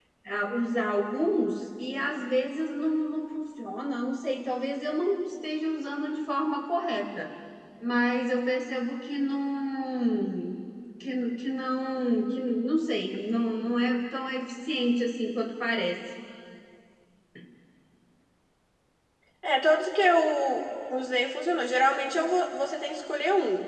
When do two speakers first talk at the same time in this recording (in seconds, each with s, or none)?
none